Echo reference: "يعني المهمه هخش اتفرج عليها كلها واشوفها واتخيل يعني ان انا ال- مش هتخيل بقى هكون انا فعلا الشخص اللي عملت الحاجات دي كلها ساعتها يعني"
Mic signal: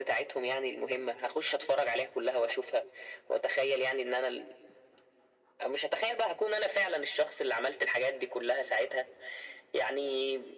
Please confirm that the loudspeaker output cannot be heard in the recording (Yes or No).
No